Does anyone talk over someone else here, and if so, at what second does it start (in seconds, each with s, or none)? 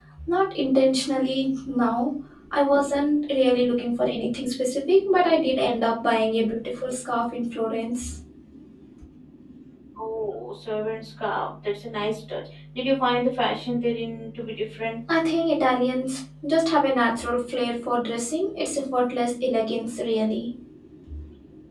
none